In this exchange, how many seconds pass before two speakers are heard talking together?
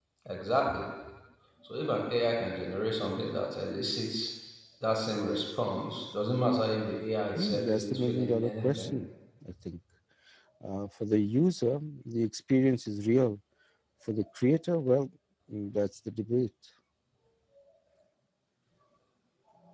7 s

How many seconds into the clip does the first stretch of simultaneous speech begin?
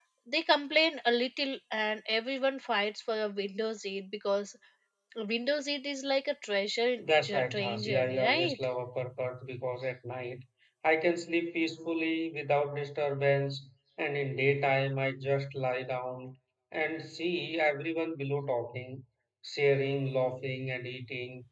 7 s

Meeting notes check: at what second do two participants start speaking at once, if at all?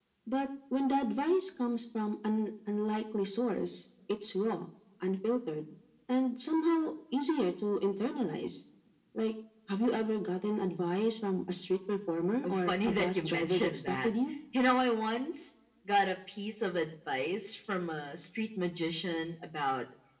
12 s

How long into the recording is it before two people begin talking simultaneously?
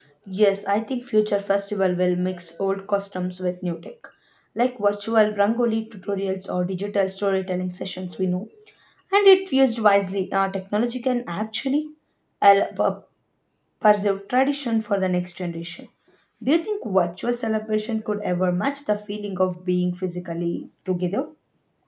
none

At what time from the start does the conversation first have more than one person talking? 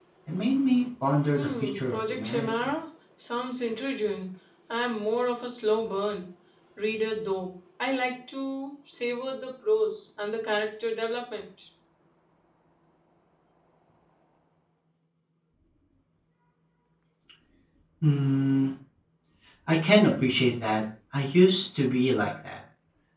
1 s

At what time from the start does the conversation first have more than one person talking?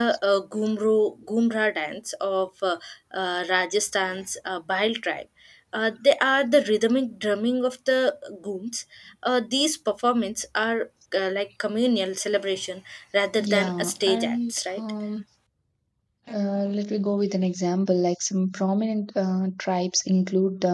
13 s

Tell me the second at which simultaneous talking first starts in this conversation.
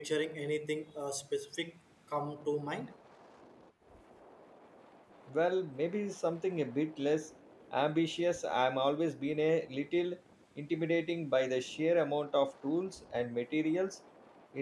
none

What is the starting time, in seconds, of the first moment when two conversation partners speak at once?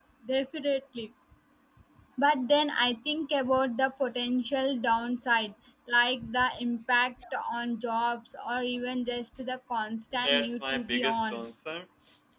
10 s

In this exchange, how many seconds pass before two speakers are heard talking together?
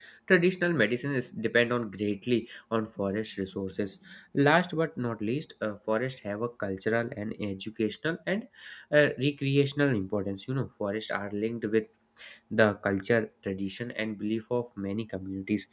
none

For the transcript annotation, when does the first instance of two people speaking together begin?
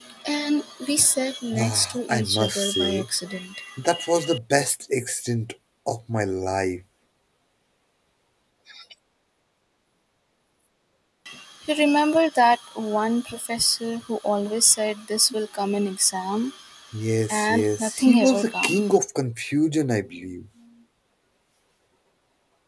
2 s

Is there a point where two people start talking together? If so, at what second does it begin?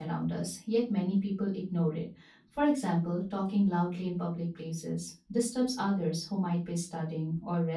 none

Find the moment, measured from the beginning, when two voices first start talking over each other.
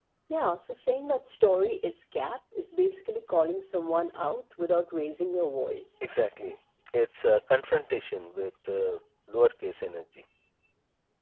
none

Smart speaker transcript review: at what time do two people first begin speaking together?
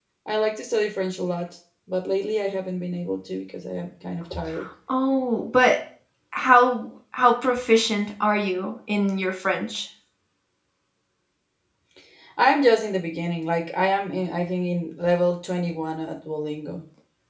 none

